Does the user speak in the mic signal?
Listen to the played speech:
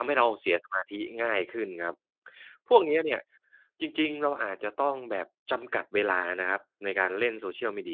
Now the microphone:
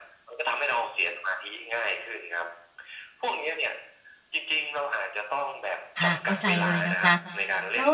Yes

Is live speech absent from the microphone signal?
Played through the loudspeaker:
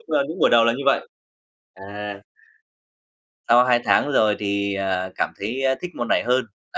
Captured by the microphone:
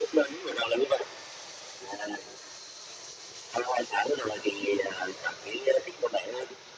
Yes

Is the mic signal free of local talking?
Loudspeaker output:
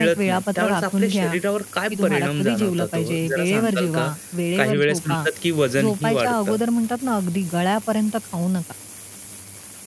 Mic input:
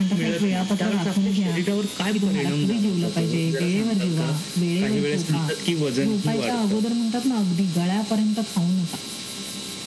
Yes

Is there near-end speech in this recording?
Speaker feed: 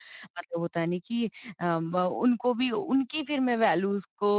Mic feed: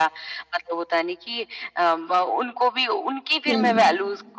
Yes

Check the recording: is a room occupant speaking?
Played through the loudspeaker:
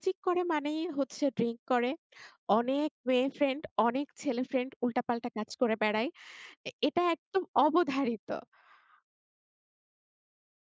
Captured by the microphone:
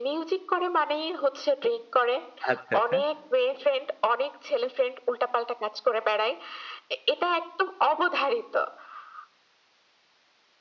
Yes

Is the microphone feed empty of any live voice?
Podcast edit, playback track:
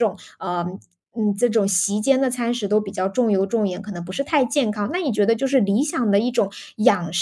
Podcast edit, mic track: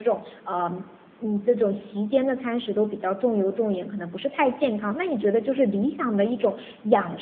Yes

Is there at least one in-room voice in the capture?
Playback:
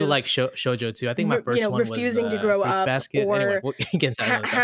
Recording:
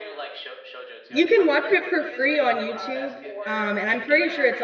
Yes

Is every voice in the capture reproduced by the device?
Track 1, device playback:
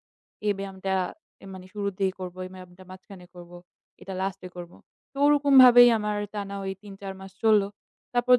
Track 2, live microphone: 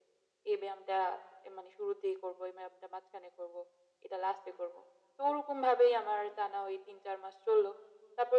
Yes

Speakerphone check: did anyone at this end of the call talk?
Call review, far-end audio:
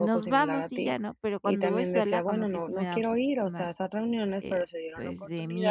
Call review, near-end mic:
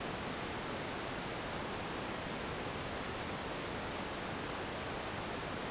No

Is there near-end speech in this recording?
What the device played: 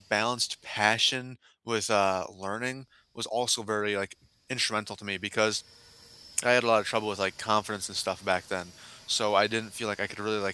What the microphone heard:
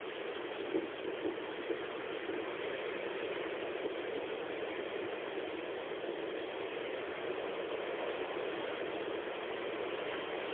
No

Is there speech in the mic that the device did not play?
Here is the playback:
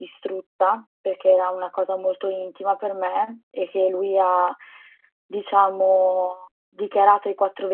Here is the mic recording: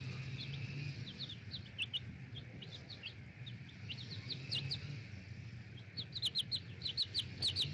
No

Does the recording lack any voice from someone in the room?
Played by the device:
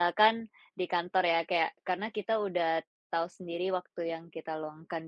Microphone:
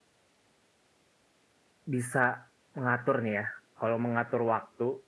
No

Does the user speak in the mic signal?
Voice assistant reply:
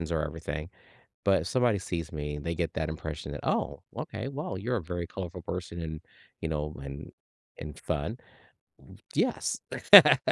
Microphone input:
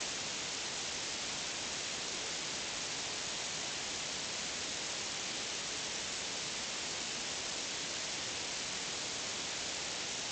No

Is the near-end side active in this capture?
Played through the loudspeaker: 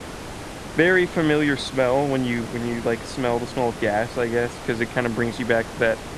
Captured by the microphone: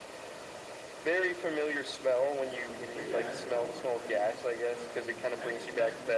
Yes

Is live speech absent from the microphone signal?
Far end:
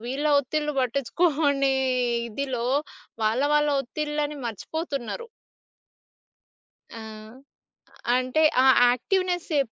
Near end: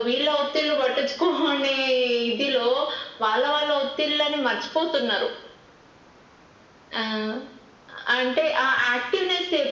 Yes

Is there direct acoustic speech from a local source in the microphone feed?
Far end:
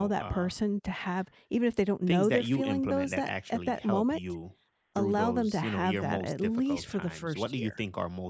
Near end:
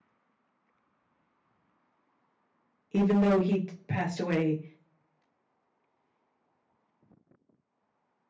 Yes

